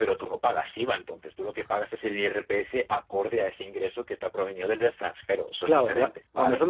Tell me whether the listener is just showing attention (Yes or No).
No